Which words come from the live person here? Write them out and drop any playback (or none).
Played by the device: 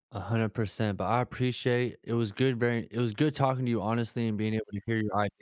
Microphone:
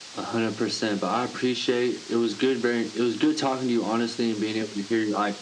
none